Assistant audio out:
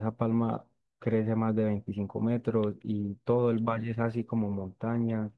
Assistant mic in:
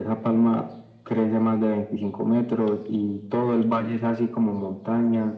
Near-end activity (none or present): none